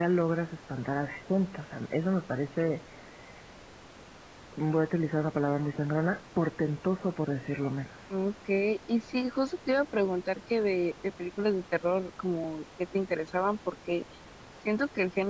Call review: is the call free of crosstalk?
Yes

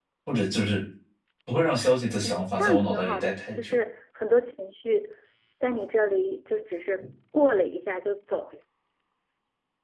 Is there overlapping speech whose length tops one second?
Yes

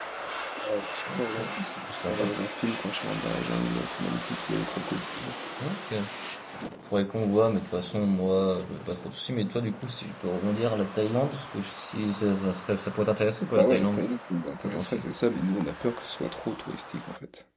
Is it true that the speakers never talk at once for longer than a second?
Yes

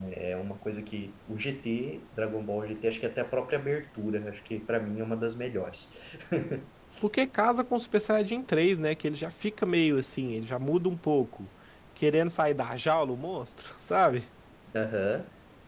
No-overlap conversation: Yes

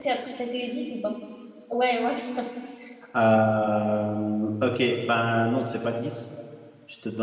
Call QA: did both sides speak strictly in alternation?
Yes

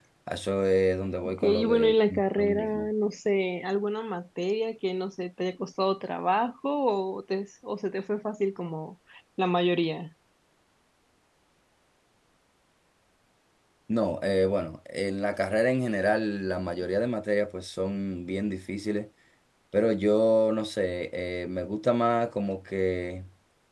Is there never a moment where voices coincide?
No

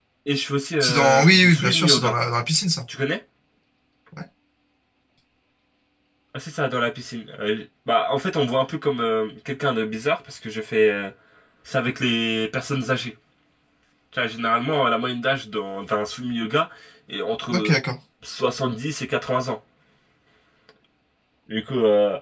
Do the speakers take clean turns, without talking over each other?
No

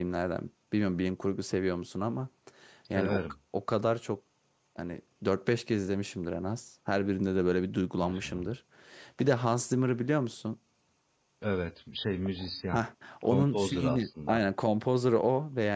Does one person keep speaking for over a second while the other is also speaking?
Yes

